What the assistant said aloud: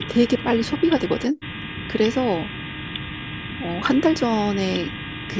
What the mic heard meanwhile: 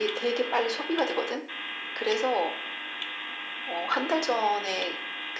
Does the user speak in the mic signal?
No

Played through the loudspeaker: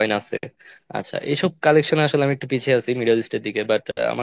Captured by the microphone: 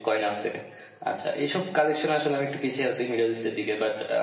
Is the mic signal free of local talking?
Yes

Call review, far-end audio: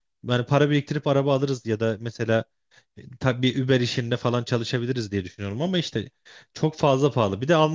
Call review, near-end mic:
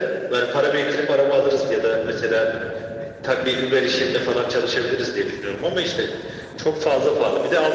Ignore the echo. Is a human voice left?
No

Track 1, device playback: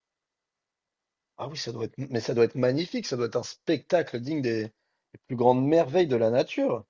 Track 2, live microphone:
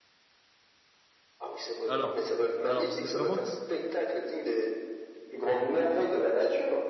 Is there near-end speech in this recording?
Yes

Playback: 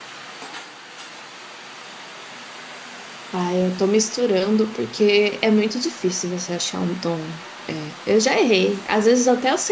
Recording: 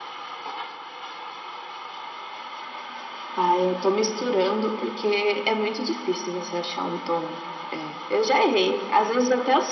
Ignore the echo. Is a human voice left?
No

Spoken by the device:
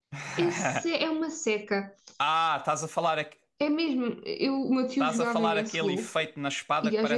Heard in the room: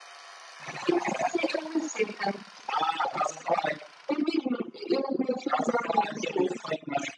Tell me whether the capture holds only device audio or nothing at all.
Yes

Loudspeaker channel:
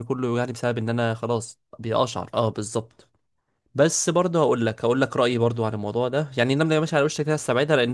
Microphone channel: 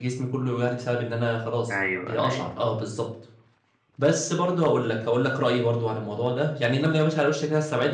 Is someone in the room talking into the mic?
Yes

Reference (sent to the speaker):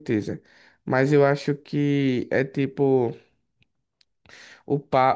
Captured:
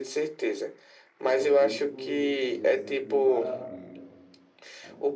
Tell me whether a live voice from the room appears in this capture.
Yes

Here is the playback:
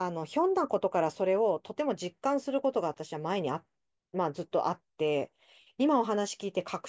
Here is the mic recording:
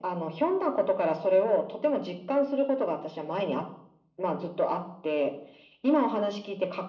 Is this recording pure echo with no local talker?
Yes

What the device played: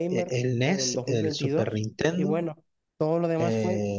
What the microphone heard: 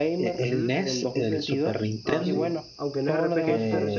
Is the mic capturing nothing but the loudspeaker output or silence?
No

